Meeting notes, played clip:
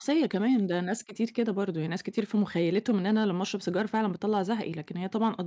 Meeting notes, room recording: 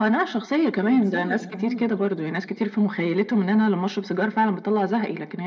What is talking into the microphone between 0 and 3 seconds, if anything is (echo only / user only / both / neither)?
both